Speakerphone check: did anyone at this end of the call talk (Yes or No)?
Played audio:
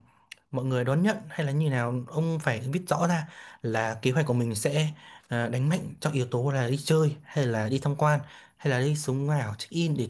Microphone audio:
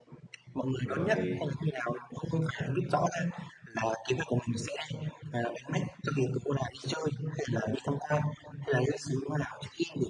Yes